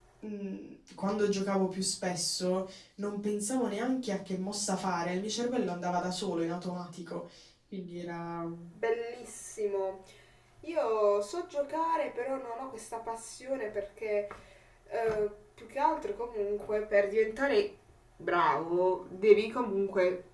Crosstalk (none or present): none